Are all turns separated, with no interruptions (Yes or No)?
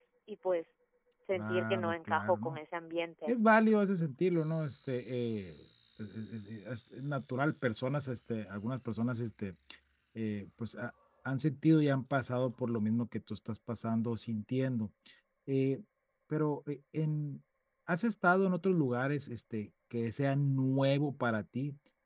No